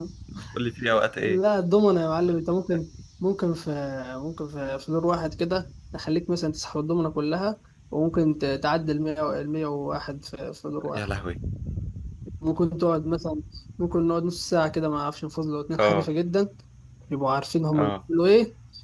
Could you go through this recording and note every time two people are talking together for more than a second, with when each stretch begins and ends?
none

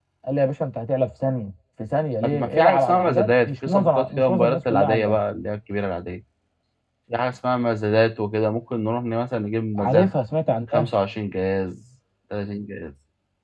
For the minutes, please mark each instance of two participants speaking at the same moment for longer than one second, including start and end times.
2.2-5.2

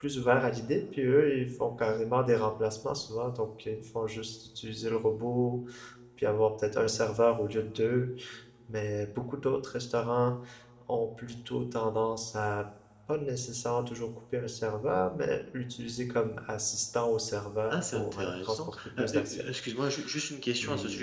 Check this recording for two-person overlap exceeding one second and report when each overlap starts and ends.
17.7-19.4

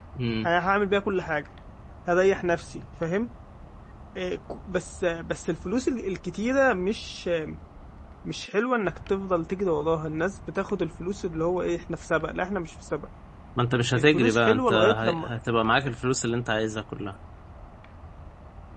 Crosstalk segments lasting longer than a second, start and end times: 13.9-15.3

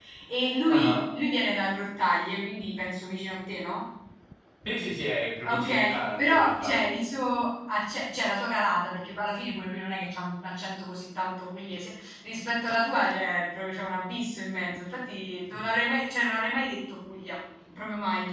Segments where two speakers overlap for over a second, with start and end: 5.4-6.9

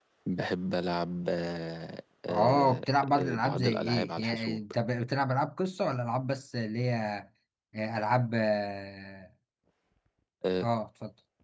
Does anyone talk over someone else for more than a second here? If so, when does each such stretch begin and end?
2.3-4.6

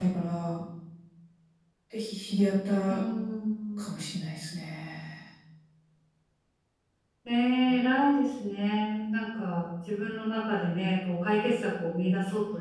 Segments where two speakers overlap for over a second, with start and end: none

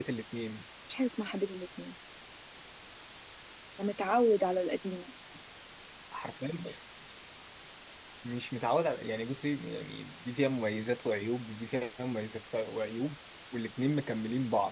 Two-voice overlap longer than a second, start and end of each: none

